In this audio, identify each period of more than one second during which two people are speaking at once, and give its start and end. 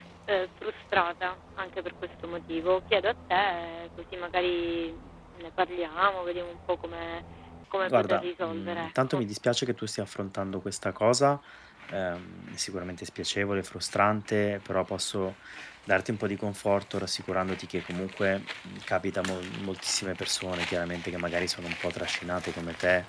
7.8-9.2

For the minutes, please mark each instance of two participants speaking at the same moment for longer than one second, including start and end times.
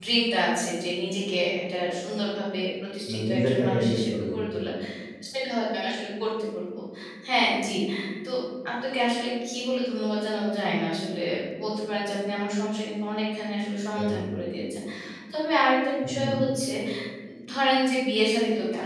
3.1-4.3

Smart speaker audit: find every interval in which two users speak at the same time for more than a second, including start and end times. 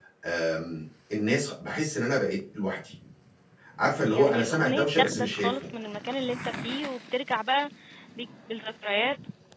4.1-5.7

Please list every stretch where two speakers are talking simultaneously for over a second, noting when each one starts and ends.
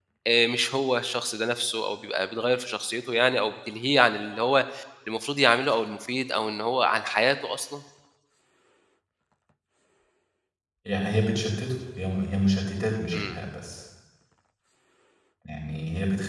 none

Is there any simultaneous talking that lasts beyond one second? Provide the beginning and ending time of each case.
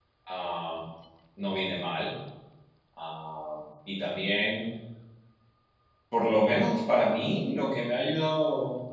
none

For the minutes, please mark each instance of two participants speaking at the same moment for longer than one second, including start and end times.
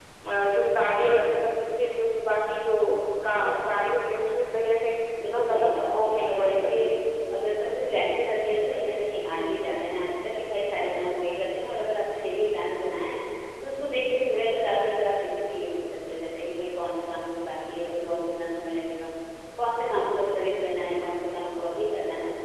5.3-6.9

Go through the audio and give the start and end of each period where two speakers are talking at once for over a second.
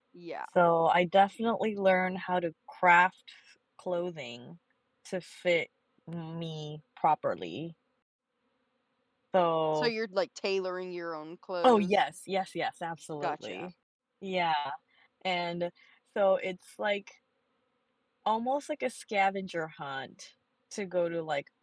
none

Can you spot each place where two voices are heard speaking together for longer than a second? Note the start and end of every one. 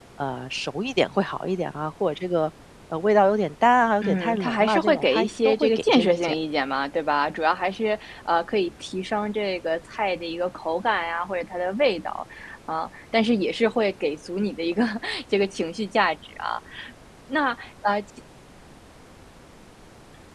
4.0-6.3

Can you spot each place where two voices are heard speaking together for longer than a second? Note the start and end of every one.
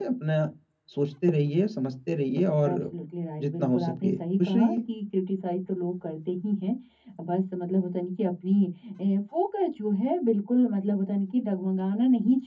3.4-4.8

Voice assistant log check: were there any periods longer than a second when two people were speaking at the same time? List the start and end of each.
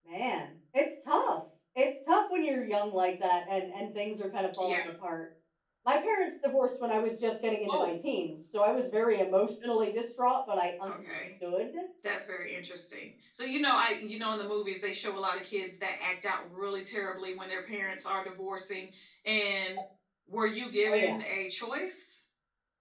none

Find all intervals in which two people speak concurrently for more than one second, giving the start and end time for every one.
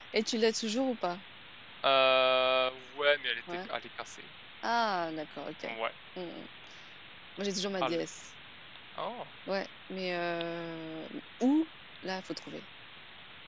none

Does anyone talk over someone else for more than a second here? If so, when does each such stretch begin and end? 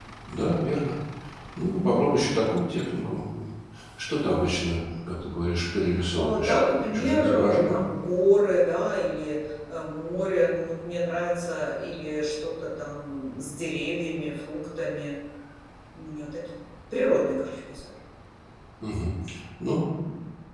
6.2-7.8

